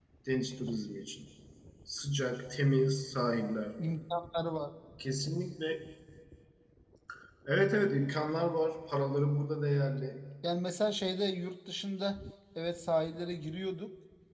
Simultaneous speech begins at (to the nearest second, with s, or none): none